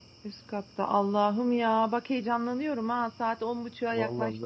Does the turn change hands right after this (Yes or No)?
Yes